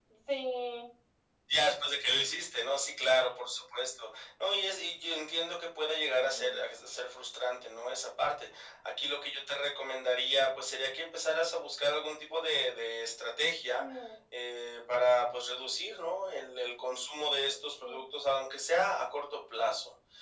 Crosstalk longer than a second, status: none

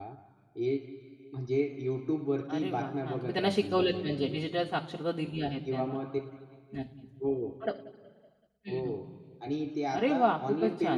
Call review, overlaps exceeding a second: present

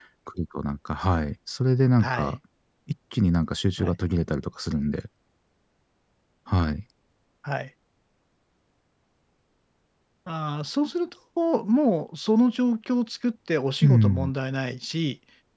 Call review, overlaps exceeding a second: none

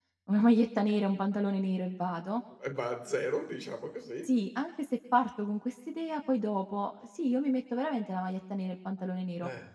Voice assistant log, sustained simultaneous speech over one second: none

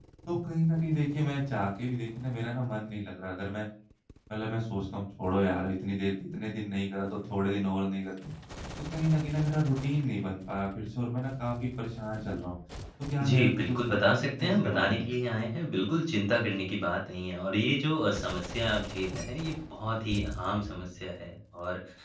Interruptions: present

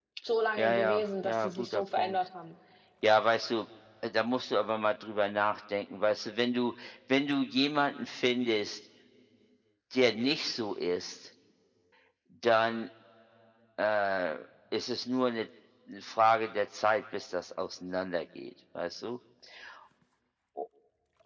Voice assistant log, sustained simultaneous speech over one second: present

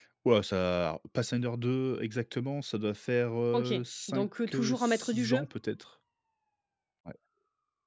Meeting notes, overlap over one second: present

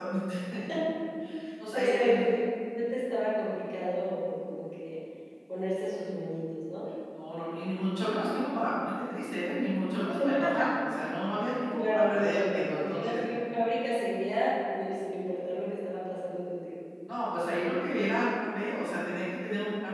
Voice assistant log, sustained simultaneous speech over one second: present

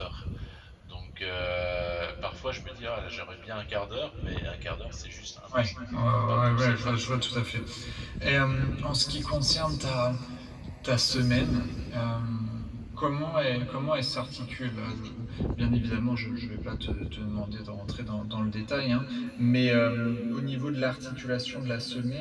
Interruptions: present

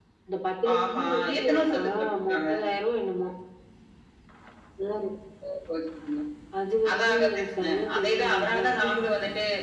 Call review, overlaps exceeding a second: present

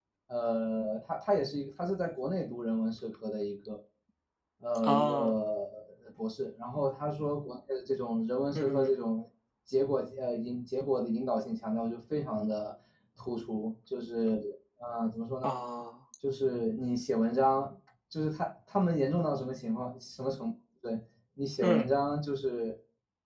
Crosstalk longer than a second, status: none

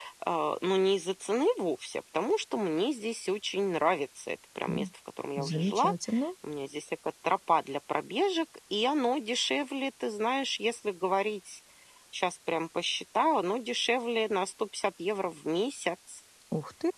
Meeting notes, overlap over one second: none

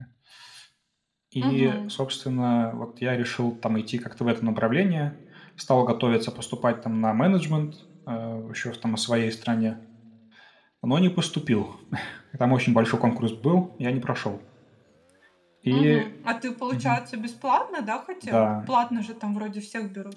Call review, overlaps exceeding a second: none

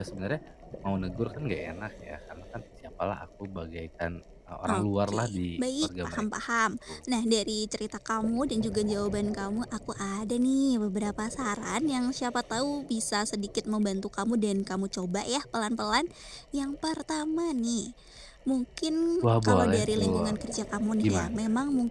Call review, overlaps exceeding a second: present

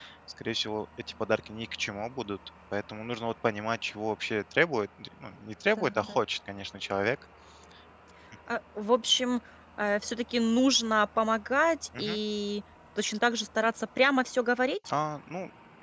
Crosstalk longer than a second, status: none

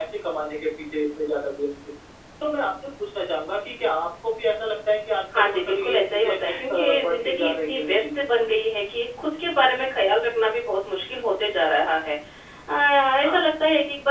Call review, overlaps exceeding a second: present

